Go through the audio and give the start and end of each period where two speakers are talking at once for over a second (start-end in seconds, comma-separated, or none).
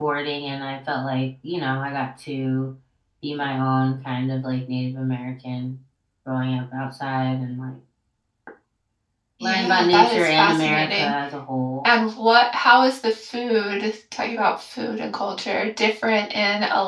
9.4-11.1